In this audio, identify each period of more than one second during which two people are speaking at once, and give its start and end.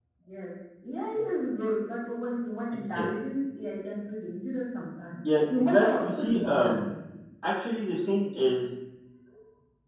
5.3-6.8

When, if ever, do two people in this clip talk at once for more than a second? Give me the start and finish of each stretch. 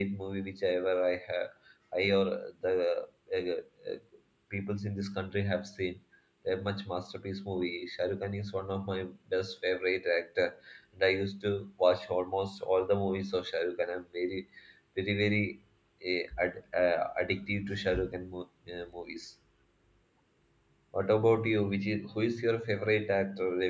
none

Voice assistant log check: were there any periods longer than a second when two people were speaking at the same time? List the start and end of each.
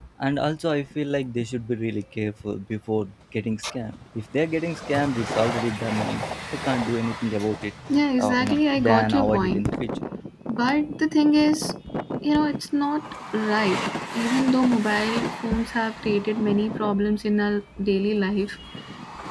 8.2-9.7

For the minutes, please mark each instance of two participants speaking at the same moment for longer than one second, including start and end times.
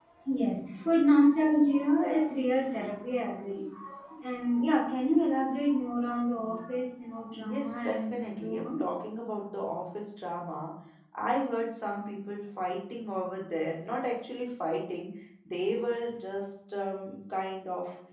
7.4-8.7

